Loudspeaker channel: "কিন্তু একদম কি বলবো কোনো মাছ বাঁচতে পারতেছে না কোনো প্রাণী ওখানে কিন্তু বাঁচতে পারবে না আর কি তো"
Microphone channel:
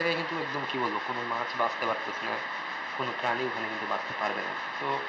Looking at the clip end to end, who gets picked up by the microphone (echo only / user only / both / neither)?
echo only